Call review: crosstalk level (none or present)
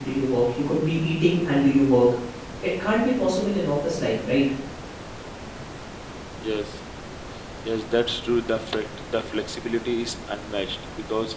none